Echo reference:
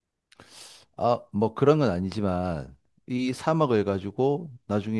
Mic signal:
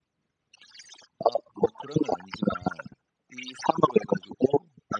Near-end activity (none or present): none